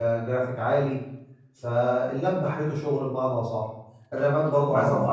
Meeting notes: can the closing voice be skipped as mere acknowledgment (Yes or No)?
No